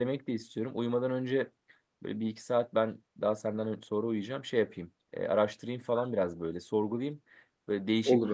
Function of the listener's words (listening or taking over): listening